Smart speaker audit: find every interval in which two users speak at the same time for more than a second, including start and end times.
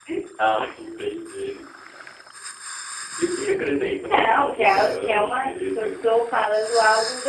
4.1-6.1

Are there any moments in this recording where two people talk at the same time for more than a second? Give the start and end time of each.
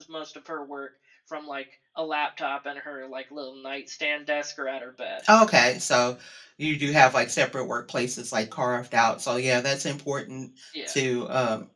none

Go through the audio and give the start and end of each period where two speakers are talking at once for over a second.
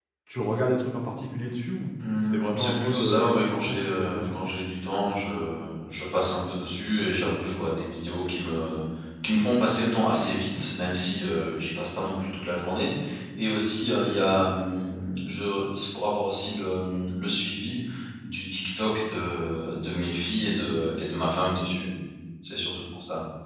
2.2-4.4

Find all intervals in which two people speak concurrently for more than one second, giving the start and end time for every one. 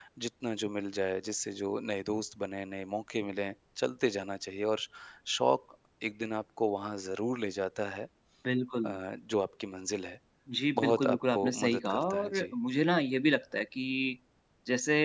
10.8-12.5

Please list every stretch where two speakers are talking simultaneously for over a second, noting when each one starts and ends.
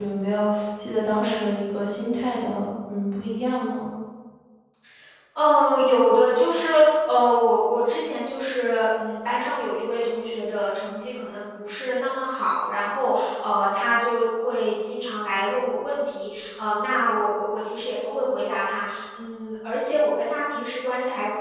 none

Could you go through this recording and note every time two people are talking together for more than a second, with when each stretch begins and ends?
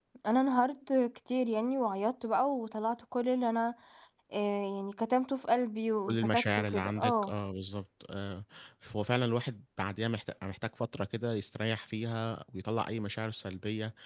6.0-7.3

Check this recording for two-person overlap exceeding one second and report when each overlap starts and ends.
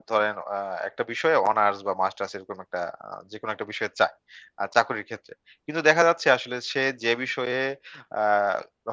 none

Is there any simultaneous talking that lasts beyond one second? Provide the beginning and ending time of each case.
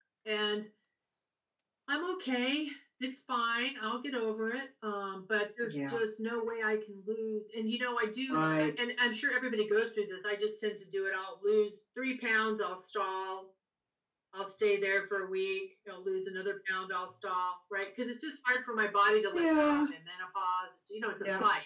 none

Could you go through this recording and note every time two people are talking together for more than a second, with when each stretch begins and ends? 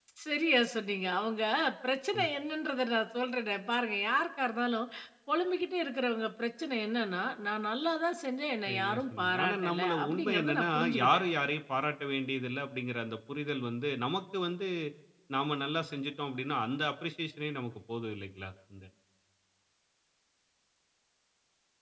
8.7-11.2

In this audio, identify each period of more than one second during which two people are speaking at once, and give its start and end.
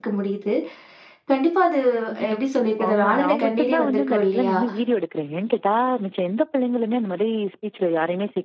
2.9-4.6

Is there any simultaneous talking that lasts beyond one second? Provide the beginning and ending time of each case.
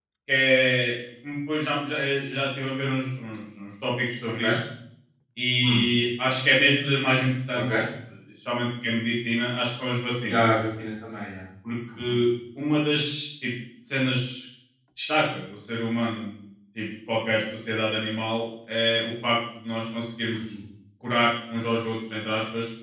none

